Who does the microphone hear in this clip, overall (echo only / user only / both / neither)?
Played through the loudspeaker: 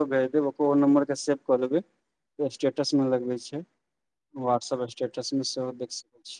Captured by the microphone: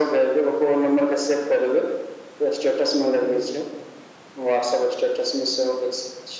both